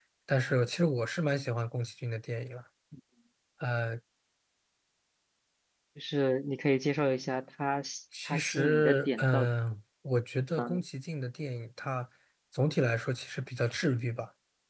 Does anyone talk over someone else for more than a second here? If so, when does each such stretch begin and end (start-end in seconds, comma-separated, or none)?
8.2-9.5